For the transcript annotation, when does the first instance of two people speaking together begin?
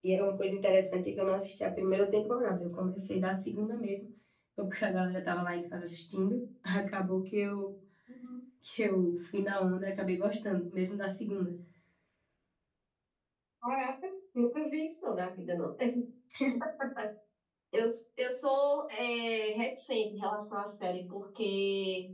none

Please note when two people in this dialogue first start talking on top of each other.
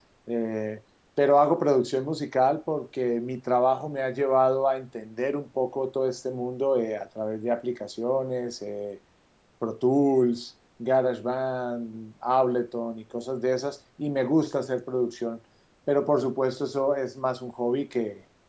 none

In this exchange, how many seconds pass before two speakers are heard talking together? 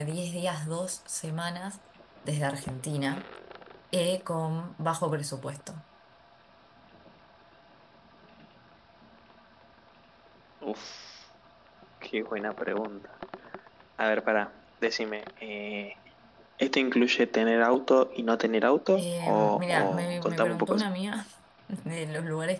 19 s

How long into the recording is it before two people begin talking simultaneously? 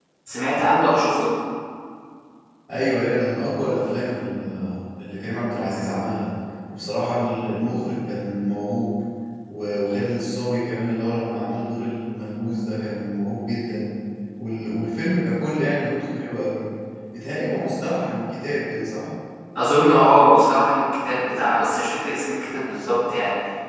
none

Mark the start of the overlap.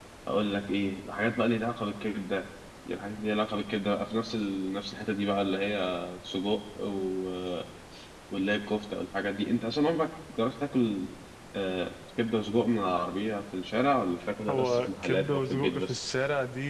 14 s

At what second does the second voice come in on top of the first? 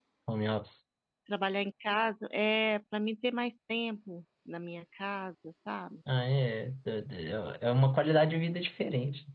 none

